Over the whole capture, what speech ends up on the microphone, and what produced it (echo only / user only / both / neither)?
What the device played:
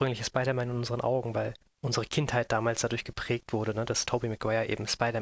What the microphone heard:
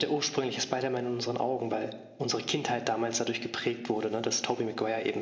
echo only